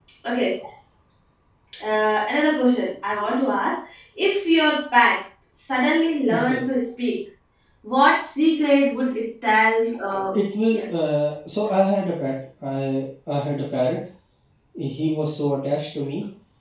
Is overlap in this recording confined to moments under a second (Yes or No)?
Yes